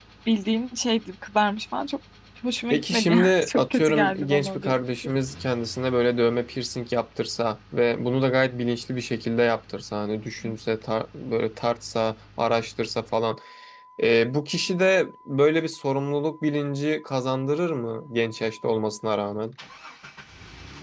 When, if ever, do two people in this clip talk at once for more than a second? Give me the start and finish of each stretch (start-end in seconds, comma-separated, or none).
2.7-4.7